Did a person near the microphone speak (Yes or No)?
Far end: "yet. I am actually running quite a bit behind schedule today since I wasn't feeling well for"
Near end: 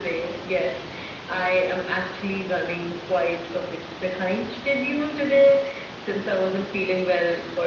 No